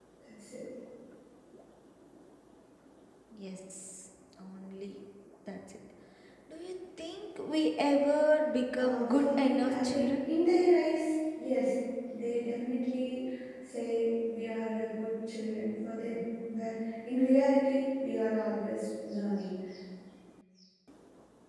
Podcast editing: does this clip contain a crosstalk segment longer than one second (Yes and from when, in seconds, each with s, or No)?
Yes, from 8.8 s